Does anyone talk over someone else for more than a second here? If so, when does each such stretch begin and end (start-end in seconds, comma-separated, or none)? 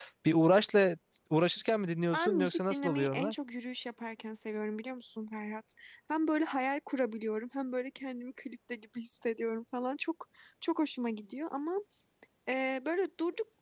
2.1-3.3